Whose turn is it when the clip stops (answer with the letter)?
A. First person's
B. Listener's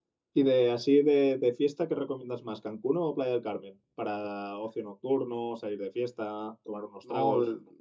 B